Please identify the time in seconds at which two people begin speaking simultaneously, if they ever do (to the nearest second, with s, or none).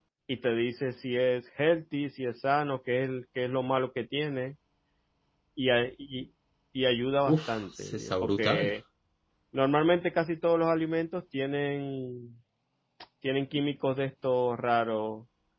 7 s